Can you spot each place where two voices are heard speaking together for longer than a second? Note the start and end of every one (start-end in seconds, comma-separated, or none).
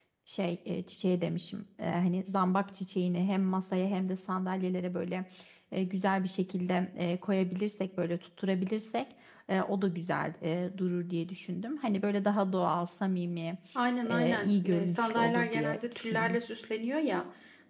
14.0-16.4